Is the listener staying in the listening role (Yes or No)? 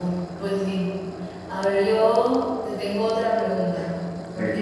Yes